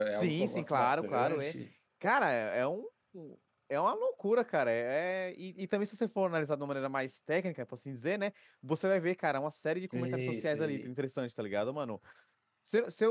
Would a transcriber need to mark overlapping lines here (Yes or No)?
Yes